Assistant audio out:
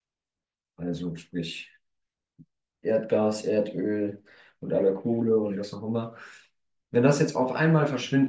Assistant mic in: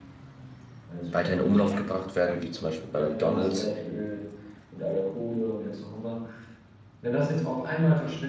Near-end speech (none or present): present